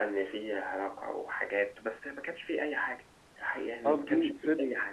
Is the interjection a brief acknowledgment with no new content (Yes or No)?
No